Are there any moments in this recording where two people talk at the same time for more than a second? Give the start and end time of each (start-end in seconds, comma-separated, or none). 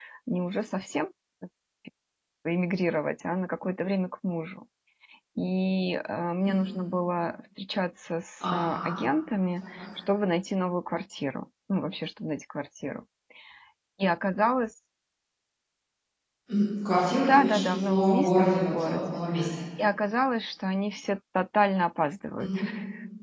17.2-19.2